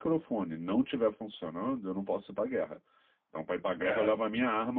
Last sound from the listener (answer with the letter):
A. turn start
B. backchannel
B